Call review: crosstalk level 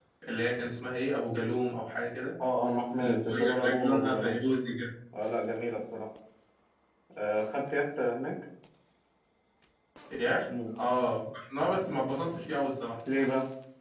present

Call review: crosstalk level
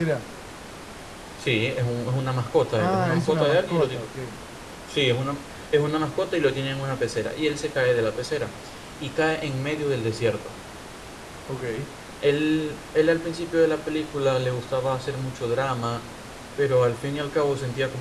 present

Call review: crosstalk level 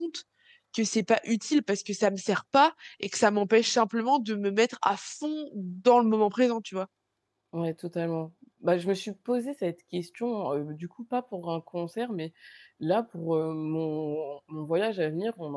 none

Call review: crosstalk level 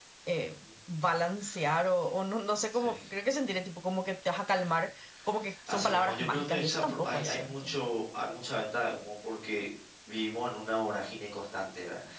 present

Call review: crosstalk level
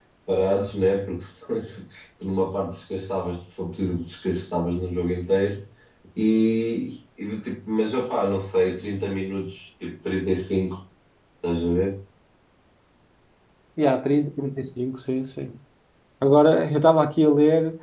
none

